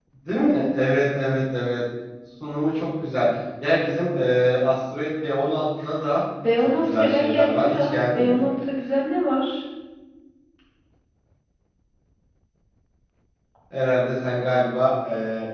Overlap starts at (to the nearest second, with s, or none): 6 s